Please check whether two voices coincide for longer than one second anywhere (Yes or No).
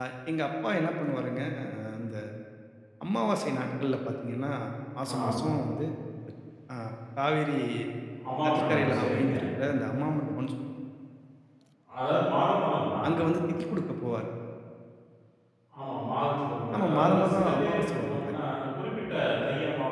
Yes